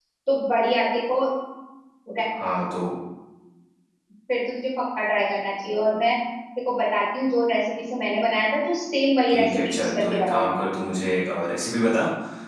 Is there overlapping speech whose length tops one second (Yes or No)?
Yes